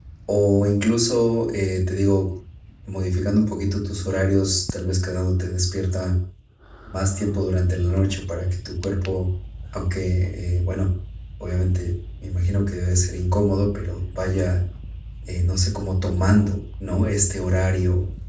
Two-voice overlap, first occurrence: none

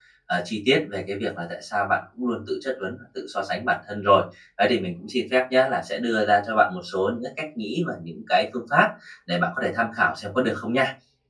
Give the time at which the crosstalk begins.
none

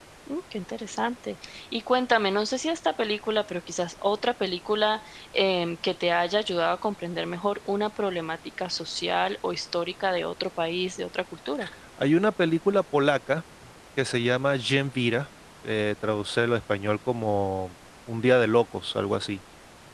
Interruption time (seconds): none

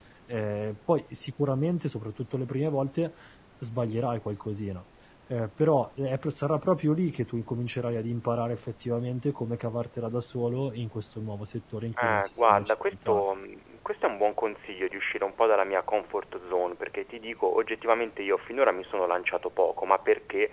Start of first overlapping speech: 12 s

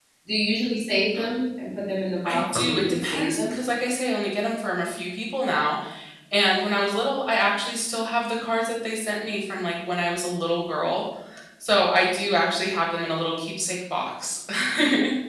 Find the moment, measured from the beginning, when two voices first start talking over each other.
2 s

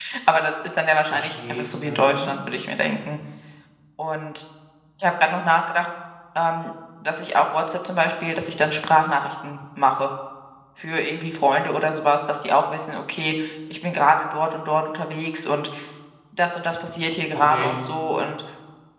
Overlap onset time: 1 s

